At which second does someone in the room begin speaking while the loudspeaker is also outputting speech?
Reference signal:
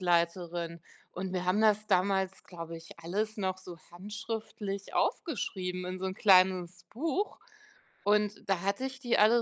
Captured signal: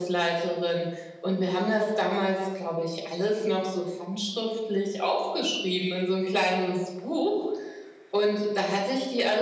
none

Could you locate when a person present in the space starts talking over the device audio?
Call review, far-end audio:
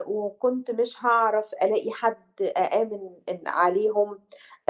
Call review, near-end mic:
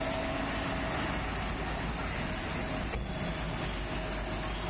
none

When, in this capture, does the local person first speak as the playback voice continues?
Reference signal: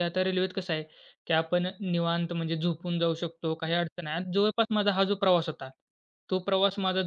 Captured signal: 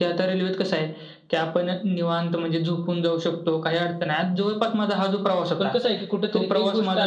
5.6 s

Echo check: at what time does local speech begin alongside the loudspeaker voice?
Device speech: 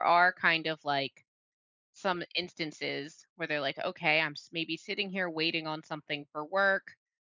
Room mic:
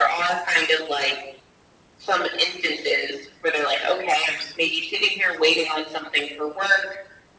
none

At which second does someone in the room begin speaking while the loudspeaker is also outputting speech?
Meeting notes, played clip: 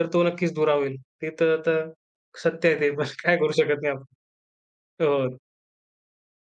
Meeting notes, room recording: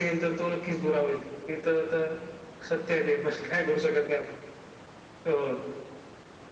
none

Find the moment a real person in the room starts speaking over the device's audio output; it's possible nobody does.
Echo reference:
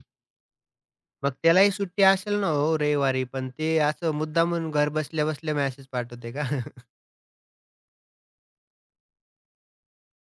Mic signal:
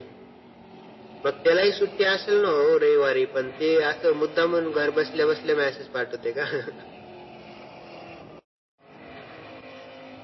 none

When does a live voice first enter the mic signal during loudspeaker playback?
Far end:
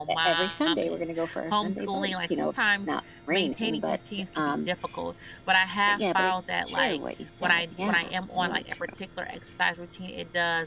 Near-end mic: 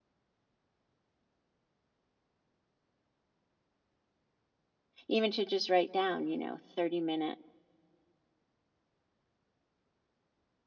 5.1 s

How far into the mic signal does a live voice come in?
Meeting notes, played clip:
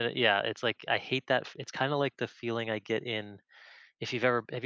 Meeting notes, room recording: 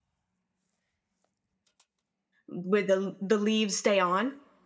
2.5 s

